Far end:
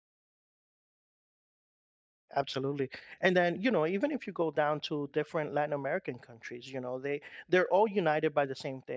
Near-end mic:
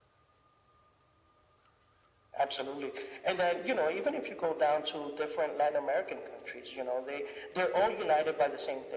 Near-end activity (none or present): none